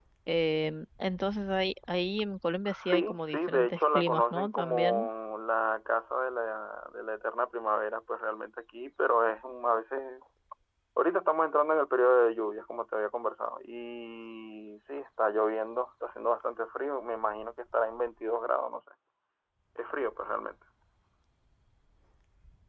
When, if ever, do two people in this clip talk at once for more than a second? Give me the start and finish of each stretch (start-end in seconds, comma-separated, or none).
2.6-5.1